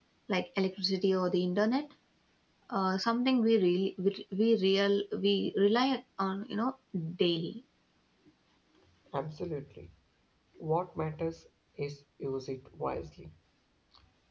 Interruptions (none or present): none